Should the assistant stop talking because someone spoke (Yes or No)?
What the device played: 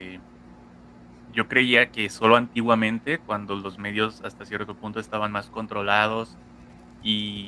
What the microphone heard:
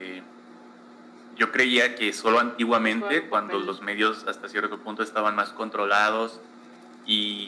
Yes